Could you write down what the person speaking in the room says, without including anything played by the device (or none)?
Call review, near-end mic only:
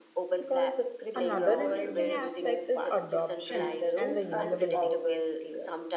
Another interesting aspect is adoption and the usability.